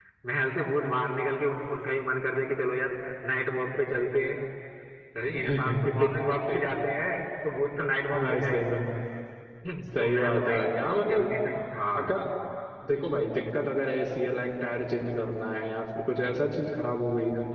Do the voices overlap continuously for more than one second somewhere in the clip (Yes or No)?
Yes